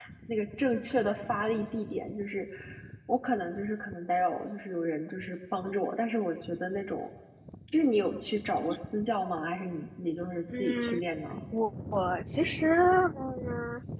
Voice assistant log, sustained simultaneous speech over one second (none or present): none